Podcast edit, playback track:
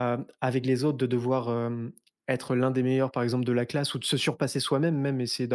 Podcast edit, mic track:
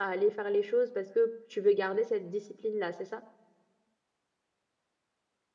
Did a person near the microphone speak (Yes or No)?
Yes